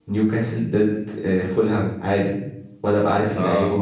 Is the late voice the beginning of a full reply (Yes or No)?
Yes